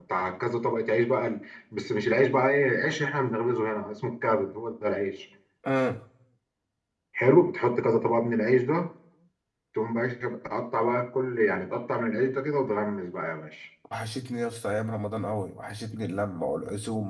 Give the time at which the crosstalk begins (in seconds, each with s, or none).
none